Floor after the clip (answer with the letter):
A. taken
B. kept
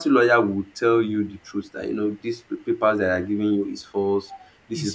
B